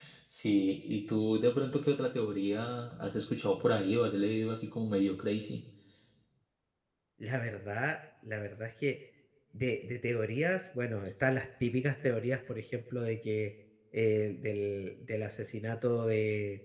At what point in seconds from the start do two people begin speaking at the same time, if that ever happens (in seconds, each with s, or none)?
none